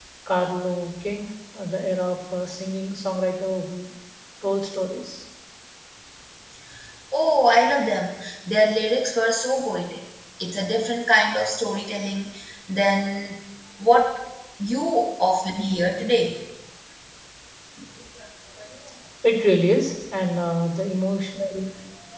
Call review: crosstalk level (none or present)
none